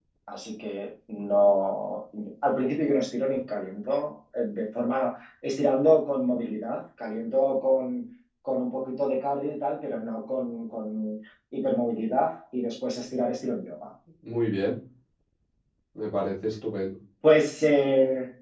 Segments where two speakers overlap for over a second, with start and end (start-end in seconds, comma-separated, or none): none